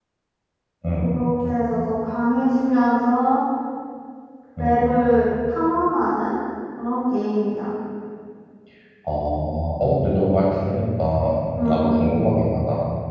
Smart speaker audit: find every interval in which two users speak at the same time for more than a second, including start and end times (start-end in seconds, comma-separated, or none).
none